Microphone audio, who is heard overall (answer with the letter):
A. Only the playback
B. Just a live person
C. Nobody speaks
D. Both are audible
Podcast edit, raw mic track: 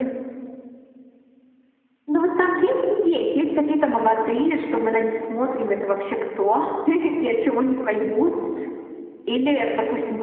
A